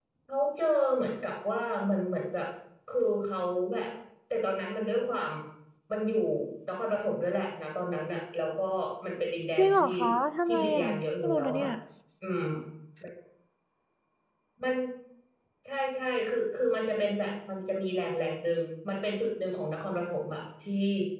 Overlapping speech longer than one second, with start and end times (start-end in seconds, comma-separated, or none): 10.5-11.7